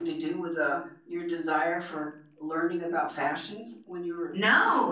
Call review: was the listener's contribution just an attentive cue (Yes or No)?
No